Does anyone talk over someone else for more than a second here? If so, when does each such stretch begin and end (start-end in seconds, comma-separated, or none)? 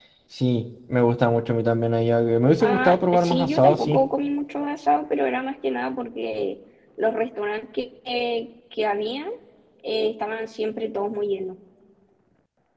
2.6-4.0